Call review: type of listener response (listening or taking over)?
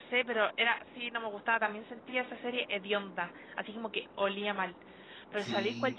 listening